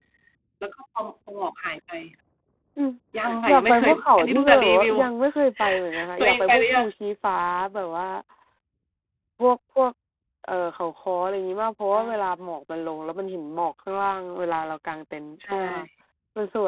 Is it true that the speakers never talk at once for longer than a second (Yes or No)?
No